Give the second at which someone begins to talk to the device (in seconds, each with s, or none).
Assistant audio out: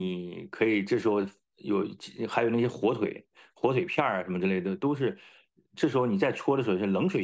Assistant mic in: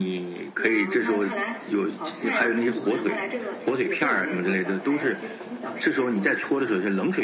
0.6 s